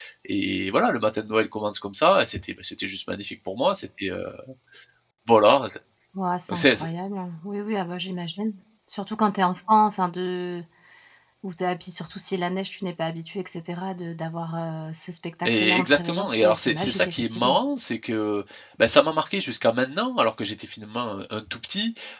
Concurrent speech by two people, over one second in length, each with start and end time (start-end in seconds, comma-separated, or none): 15.4-17.6